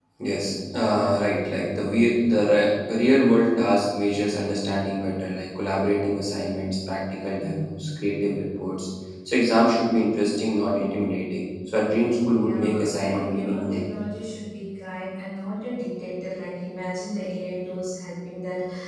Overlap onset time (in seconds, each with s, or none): 12.4 s